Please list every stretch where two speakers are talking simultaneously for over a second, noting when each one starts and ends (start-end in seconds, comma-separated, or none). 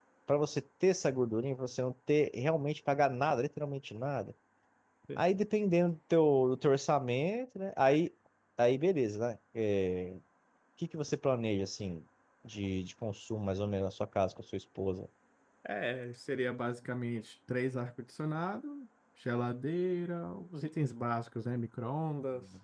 none